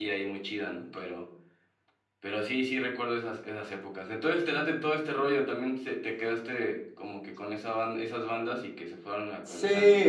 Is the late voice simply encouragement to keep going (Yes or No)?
No